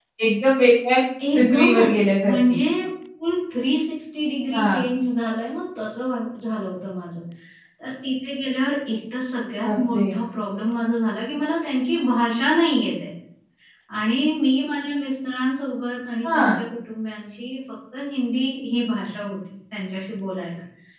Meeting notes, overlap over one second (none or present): present